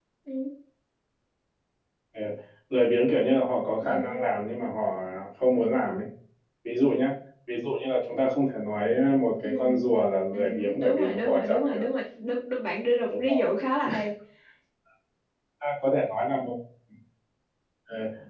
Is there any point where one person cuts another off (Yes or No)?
Yes